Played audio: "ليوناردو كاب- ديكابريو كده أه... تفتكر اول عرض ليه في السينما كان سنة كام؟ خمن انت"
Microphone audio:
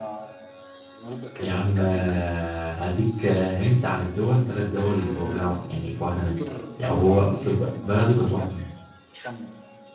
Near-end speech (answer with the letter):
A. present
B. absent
A